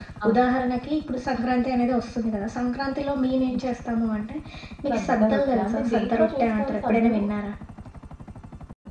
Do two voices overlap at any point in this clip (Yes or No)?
Yes